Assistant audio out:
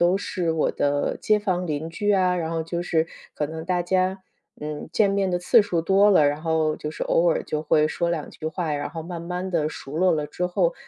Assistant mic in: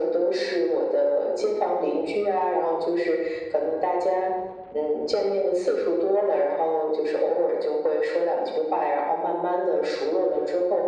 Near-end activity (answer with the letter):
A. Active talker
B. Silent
B